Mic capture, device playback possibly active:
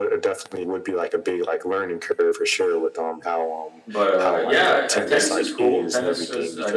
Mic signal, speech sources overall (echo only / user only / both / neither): both